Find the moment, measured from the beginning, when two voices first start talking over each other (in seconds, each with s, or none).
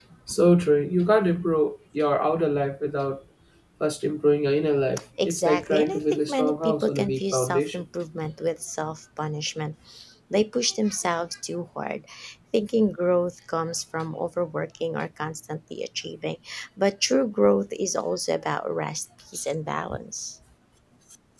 5.2 s